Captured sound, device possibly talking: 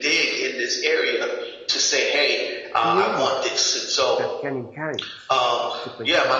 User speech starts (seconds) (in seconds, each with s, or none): 2.8 s